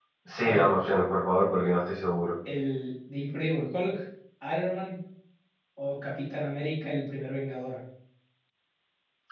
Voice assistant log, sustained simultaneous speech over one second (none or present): none